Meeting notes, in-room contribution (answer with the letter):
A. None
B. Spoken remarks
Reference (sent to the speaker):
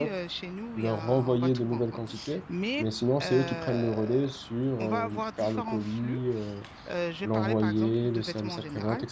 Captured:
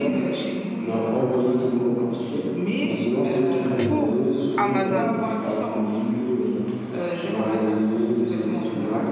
B